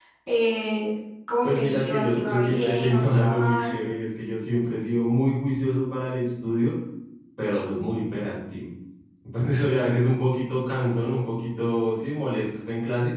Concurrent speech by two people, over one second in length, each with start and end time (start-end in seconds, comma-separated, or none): 1.4-3.7